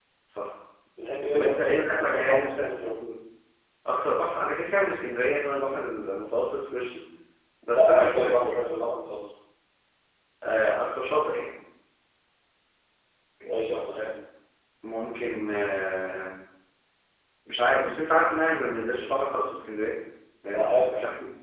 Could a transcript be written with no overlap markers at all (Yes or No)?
No